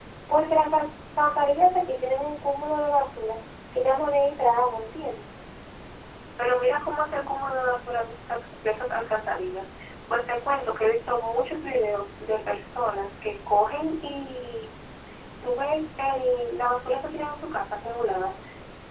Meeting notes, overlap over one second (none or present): none